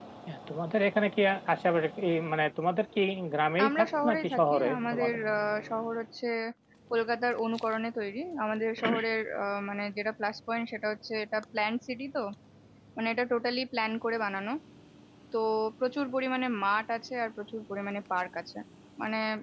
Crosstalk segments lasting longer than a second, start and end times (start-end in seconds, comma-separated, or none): 3.7-5.2